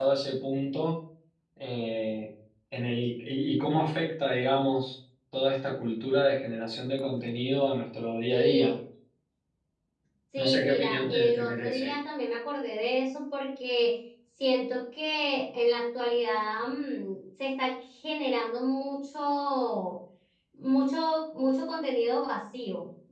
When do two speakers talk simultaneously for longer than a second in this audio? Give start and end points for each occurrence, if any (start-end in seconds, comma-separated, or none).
10.4-11.9